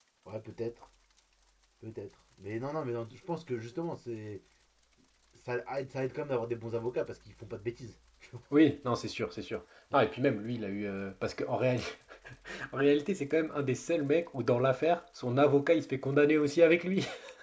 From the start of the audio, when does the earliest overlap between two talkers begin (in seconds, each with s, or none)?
none